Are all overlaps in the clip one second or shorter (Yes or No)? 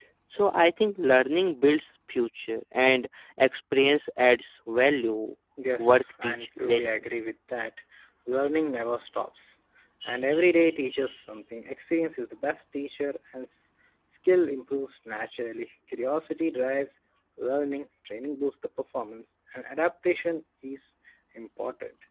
No